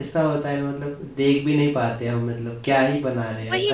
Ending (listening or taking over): taking over